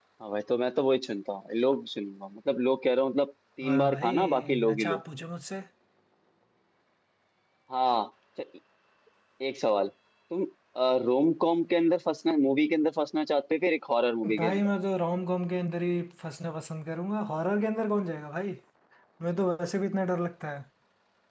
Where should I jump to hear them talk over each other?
4 s

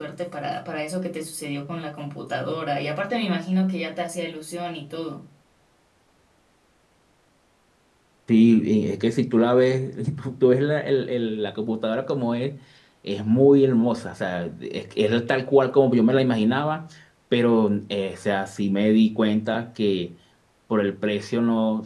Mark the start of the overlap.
none

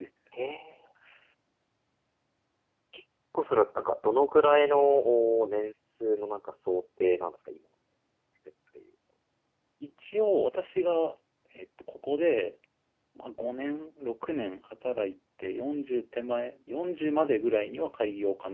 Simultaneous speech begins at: none

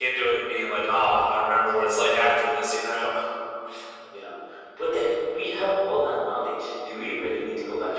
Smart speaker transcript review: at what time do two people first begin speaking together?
none

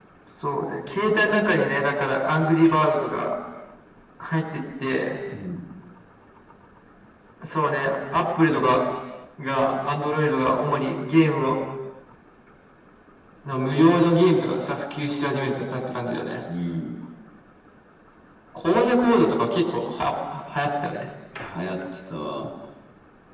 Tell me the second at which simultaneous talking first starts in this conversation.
none

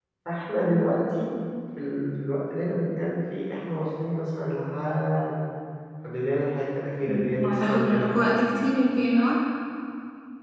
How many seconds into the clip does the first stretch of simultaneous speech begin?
7 s

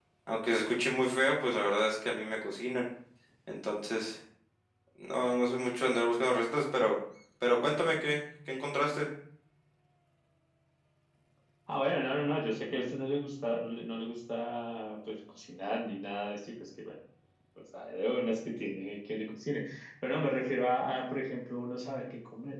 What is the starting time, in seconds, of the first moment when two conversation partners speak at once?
none

